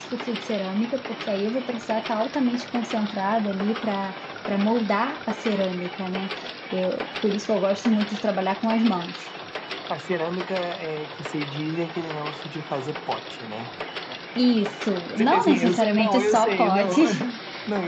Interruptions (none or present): present